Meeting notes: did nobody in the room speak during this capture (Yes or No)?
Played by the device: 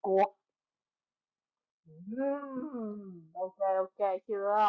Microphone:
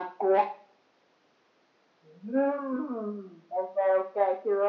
Yes